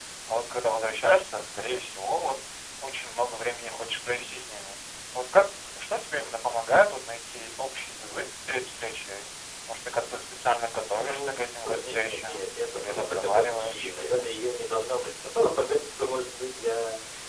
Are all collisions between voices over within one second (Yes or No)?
No